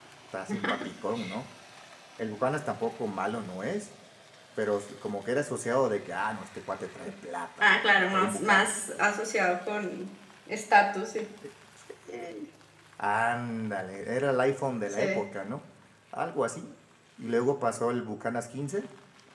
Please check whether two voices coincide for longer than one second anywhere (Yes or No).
Yes